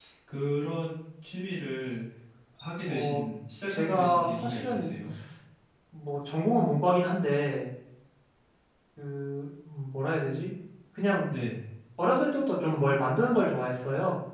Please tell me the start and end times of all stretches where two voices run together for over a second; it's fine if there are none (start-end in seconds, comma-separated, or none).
3.7-4.9